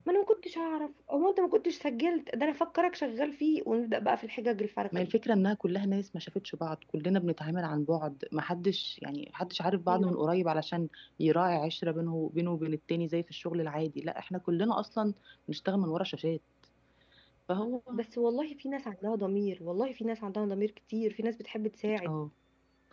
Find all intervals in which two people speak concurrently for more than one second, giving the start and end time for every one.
none

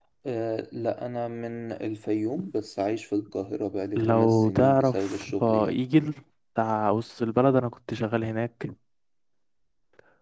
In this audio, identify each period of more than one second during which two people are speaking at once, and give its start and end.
4.0-5.8

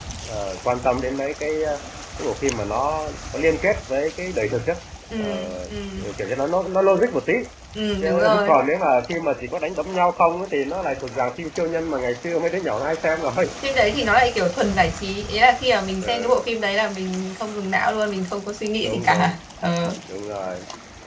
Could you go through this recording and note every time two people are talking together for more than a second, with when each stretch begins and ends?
none

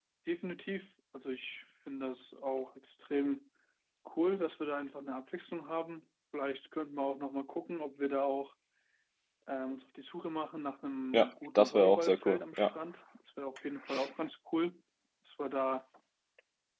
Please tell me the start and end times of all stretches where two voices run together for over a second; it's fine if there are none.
11.1-12.7

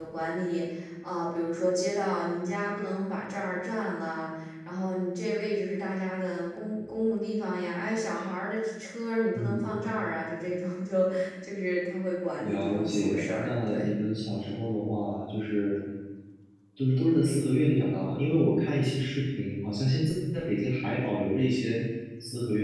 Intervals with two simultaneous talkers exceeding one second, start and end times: 12.4-13.9

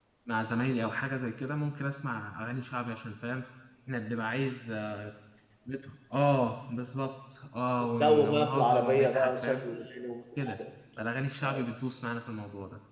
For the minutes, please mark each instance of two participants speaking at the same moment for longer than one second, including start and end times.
8.0-9.6

